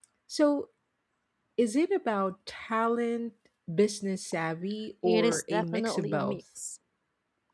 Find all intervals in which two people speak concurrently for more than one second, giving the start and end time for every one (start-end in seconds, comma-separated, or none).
5.0-6.4